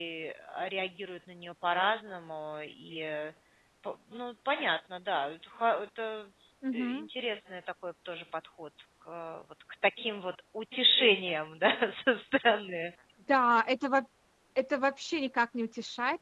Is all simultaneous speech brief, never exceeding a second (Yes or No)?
Yes